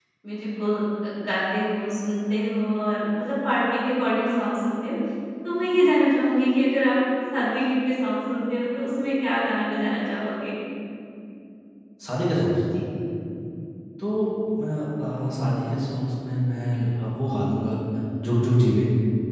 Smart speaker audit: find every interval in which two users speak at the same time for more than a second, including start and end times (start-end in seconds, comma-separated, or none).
none